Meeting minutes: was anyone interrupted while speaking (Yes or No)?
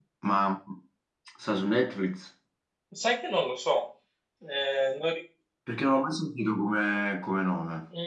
No